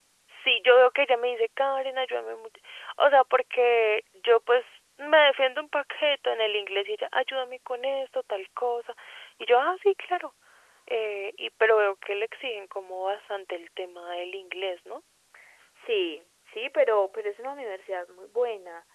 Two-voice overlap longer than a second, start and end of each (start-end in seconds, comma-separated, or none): none